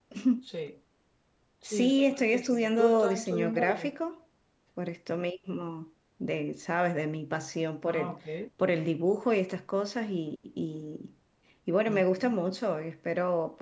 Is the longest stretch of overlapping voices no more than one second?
No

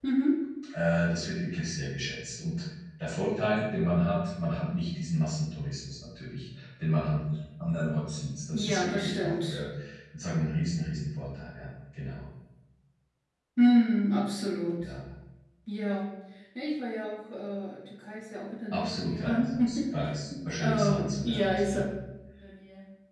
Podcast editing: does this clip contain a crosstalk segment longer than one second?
Yes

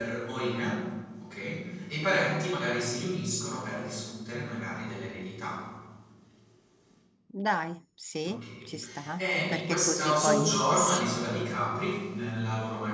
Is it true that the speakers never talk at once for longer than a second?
No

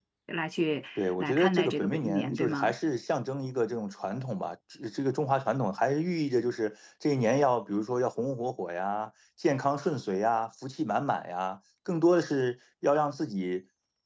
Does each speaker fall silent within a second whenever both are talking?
No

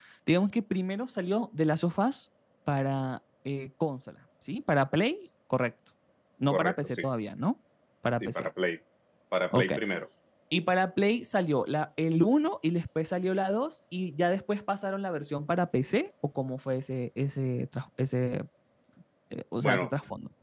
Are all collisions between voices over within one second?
Yes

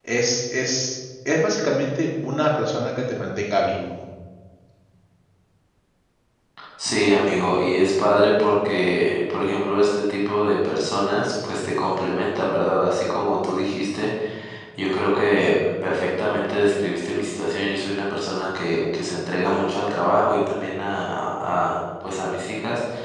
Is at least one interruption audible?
No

